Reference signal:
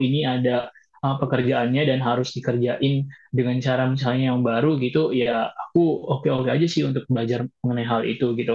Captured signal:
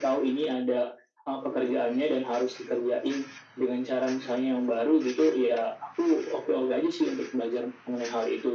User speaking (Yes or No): No